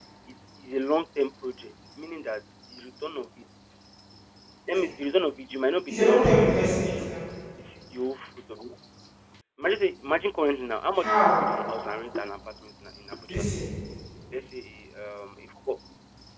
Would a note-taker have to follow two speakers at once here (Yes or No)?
Yes